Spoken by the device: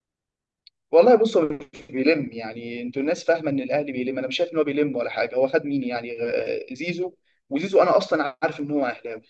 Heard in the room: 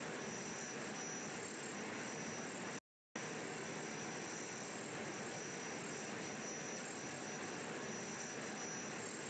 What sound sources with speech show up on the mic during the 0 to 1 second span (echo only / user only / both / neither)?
neither